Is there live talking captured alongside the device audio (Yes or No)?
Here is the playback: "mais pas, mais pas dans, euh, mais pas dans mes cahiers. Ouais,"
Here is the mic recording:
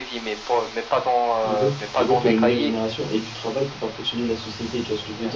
Yes